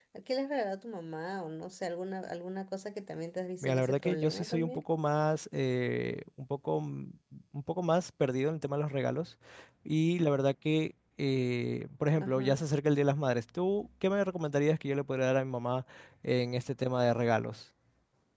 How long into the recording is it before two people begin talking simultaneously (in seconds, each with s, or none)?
3.6 s